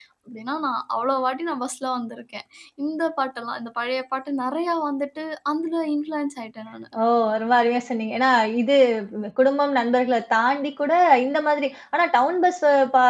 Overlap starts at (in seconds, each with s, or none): none